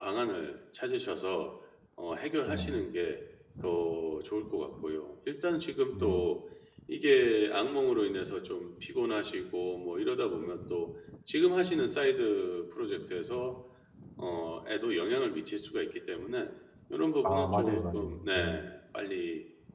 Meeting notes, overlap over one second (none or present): present